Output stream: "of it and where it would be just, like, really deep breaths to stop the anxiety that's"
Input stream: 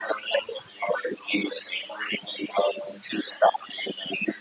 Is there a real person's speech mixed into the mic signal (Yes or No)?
No